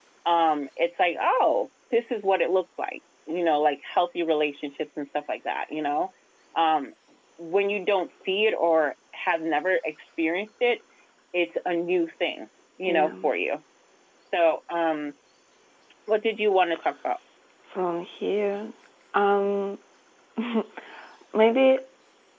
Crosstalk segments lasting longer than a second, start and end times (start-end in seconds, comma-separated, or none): none